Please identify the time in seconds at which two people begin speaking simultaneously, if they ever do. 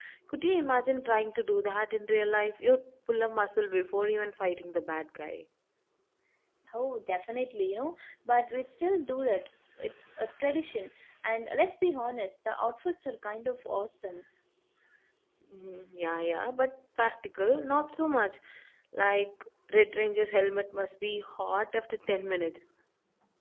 none

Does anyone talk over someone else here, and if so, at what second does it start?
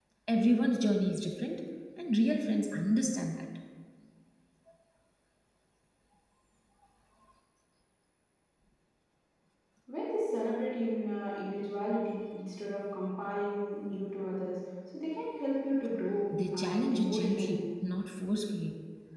16.3 s

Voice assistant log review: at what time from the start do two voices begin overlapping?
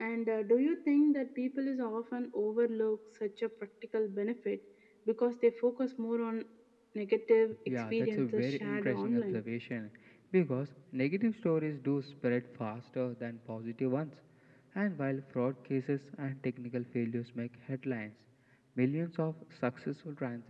7.9 s

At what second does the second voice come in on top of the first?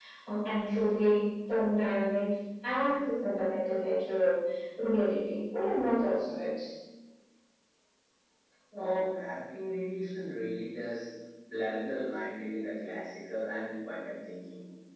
none

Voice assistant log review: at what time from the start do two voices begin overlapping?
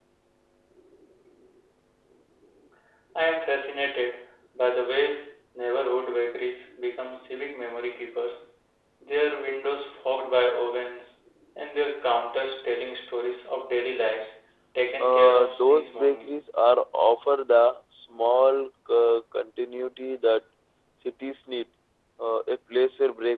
15.0 s

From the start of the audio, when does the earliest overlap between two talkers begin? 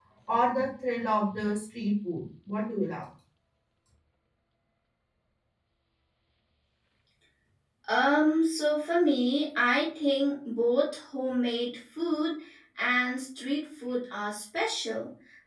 none

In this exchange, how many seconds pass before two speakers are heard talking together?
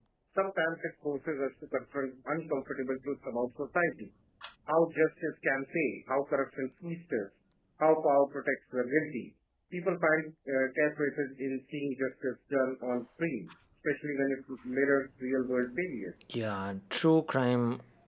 none

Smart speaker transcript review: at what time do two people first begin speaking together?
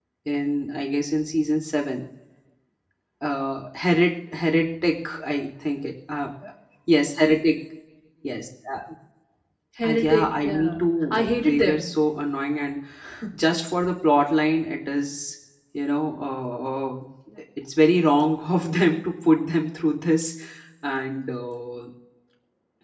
9.9 s

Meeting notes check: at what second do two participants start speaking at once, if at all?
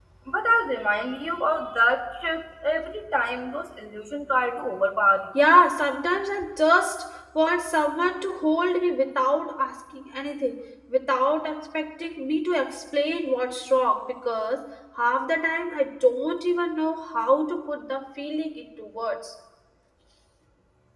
none

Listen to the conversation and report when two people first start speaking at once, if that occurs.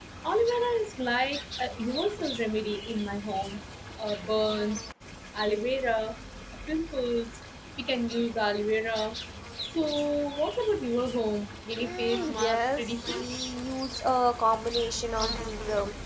11.8 s

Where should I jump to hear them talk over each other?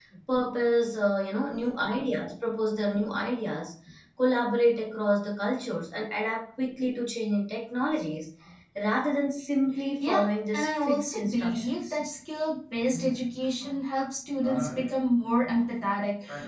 10.0 s

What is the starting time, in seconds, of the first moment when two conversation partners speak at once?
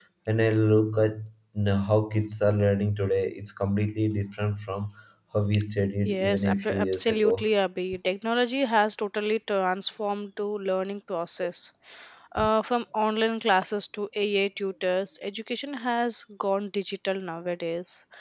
6.0 s

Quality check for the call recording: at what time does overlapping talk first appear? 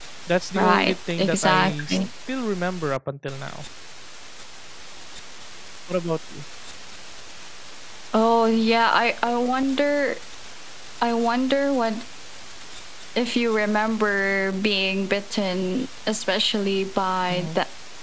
0.6 s

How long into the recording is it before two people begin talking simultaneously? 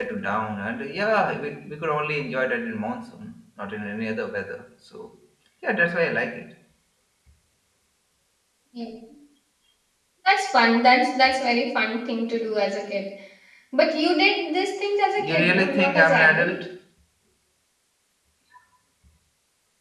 15.2 s

